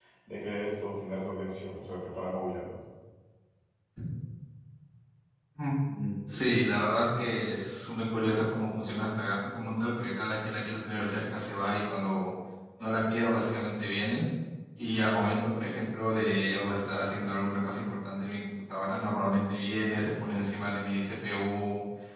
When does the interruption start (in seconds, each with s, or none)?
none